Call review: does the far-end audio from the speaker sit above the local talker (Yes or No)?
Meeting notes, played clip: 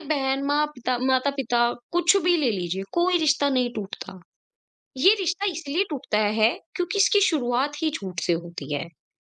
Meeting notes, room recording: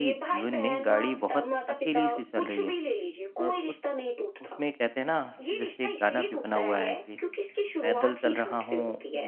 No